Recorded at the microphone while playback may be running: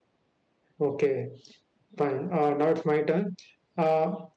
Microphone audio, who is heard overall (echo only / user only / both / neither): user only